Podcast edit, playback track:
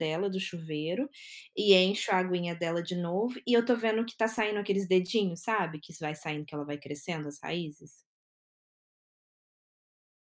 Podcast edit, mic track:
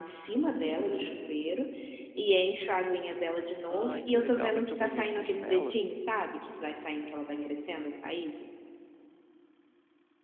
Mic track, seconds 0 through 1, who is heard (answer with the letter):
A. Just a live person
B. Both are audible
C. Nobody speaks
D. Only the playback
D